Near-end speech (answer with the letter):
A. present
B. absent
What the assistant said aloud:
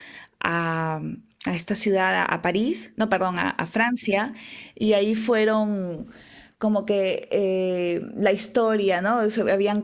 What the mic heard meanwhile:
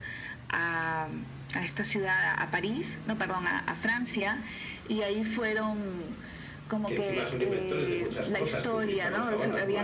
A